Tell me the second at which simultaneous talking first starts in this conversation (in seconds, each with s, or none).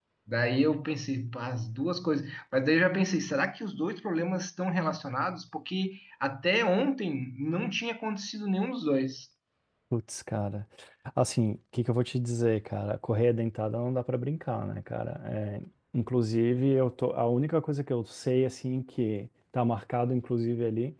none